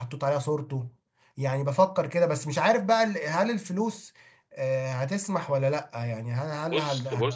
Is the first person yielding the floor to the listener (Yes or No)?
Yes